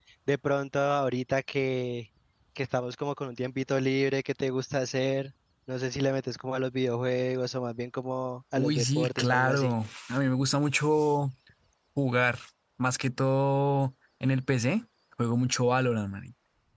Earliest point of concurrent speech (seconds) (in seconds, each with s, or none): 8.6 s